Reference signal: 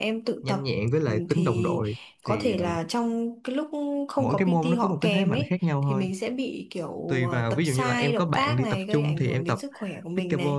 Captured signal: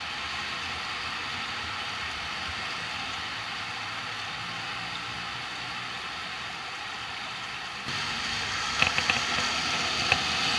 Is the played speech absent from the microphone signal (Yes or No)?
Yes